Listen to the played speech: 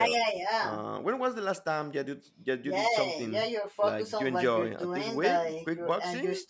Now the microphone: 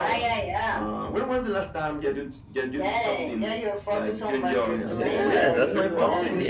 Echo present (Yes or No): Yes